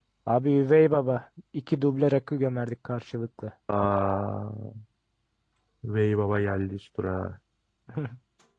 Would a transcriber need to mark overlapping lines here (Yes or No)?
No